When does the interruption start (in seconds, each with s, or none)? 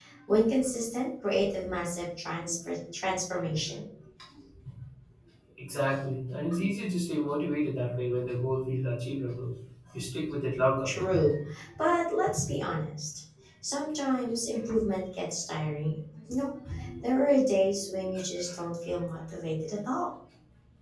none